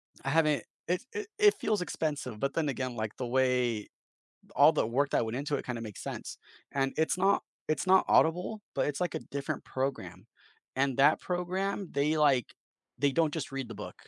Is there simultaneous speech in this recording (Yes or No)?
No